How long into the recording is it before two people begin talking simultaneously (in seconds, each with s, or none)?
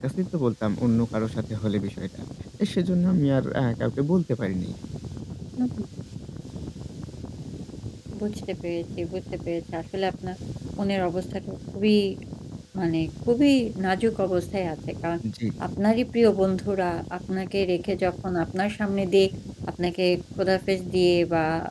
none